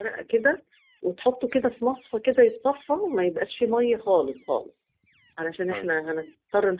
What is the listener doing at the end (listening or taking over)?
listening